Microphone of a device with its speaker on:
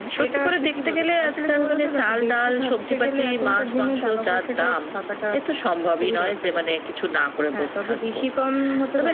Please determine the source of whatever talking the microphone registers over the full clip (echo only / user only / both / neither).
echo only